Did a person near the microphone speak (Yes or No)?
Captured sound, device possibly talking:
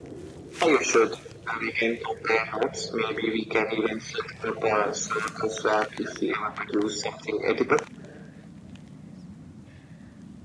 No